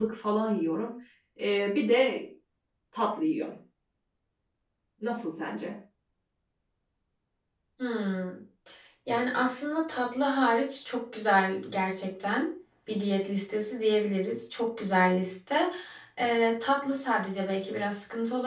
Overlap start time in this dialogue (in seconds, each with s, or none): none